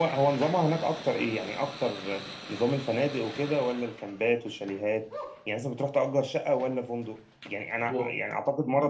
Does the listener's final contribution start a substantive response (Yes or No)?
No